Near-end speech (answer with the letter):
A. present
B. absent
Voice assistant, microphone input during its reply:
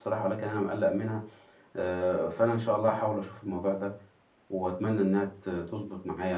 A